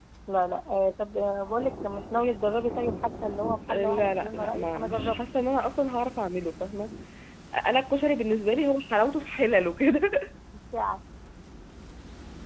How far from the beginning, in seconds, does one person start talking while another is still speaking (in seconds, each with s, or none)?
3.7 s